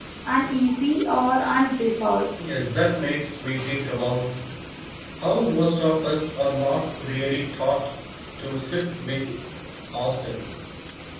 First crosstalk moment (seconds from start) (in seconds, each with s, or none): none